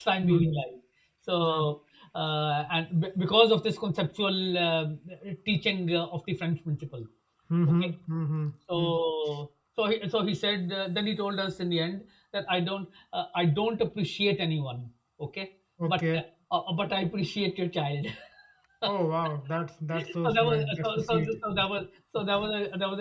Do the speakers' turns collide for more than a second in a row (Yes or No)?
Yes